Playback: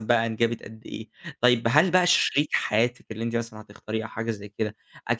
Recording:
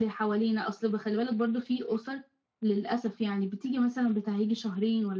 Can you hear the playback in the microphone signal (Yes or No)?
No